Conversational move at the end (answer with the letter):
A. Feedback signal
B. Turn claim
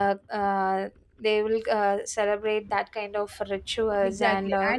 B